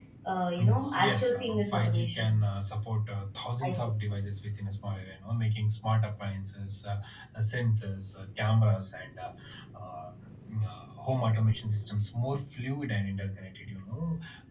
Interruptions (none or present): present